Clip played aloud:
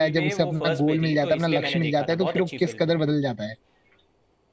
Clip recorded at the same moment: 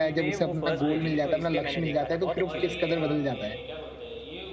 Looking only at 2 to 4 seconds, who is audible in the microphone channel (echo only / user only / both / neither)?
both